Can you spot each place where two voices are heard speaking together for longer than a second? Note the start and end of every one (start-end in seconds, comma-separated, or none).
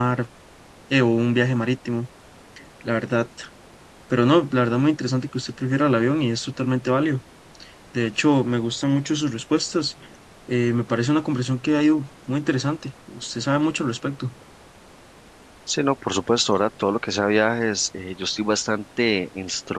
none